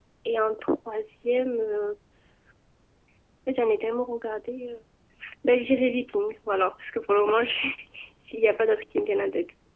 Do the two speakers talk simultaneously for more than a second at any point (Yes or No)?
No